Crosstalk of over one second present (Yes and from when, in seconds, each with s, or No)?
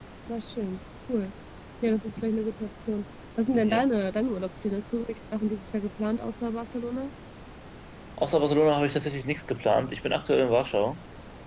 No